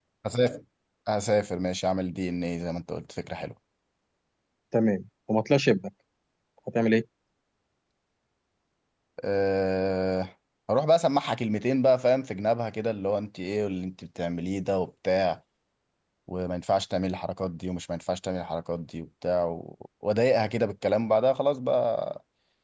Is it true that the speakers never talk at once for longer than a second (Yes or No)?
Yes